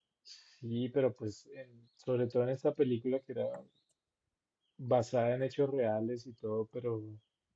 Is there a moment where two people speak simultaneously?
No

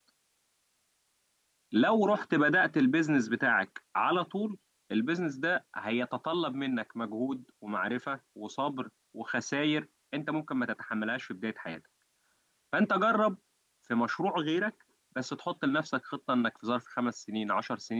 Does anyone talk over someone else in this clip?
No

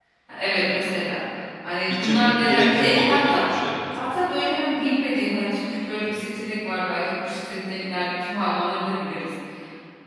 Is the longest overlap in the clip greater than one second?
Yes, from 2.0 s

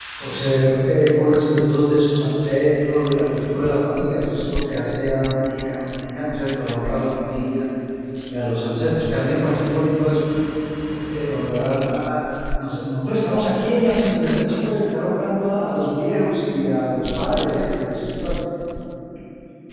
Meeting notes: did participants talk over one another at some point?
No

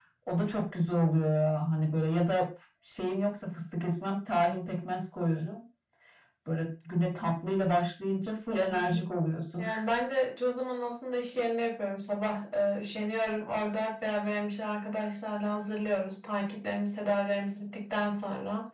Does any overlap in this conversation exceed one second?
No

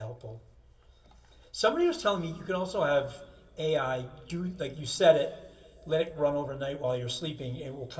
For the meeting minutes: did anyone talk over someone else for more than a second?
No

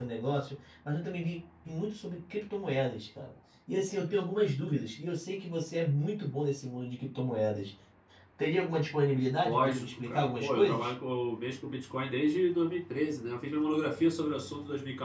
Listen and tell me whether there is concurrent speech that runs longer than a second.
Yes, from 9.4 s

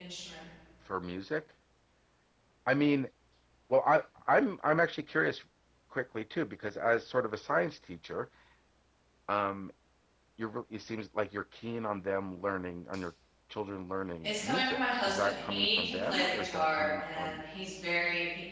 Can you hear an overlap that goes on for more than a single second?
Yes, from 14.2 s

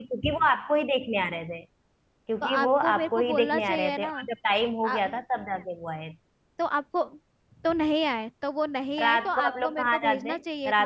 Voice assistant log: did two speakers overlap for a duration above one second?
Yes, from 2.4 s

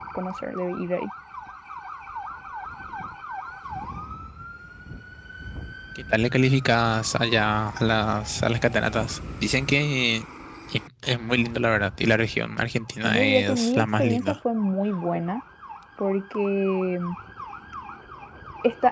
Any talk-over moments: Yes, from 13.0 s

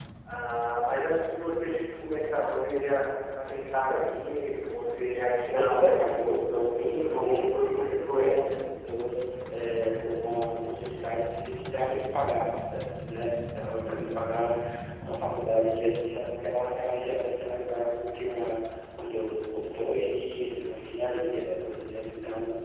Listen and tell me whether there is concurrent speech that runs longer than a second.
Yes, from 5.5 s

